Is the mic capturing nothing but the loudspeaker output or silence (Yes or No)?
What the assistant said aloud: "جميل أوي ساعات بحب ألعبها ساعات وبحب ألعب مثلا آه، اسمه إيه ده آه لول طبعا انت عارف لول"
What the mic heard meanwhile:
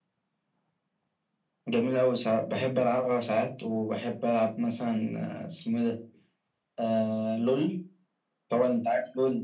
Yes